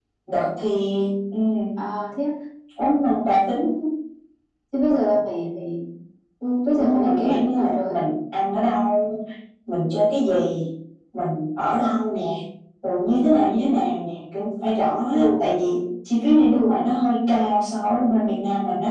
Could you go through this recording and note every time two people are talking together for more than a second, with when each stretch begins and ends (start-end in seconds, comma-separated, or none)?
6.7-7.9